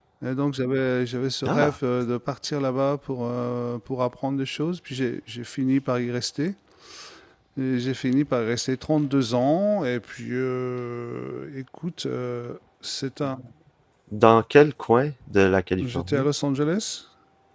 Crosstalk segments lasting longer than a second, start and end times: none

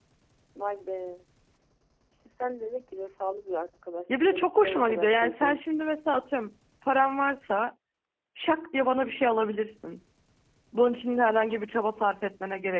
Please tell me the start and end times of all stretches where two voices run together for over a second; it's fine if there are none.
4.2-5.6

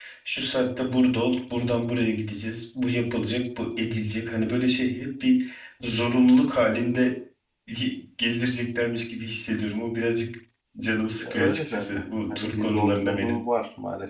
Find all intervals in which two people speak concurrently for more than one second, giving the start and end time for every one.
11.2-13.4

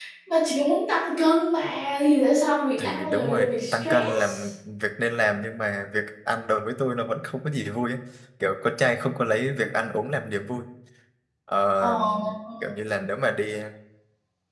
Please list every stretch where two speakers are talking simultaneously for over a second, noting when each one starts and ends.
2.8-4.5

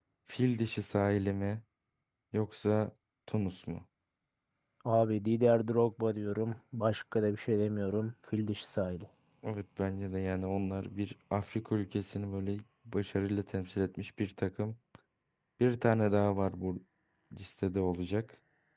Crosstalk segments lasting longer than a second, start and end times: none

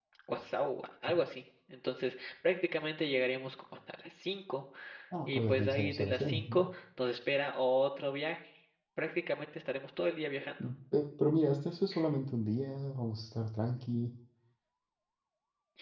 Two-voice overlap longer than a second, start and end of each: 5.3-6.6

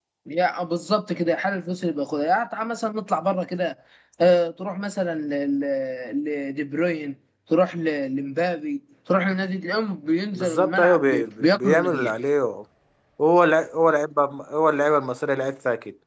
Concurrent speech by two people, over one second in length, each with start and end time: 10.3-12.1

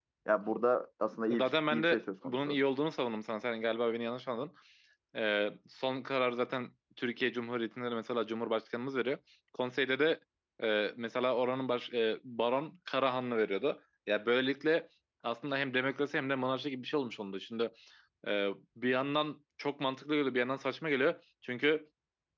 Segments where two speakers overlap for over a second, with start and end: 1.3-2.6

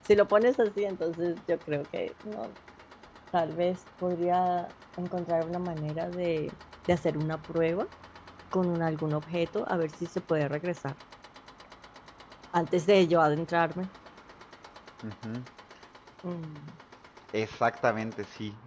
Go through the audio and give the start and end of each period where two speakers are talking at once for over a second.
none

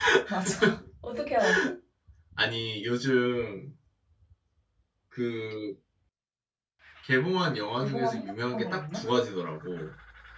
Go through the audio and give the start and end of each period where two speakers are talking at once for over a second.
7.8-9.2

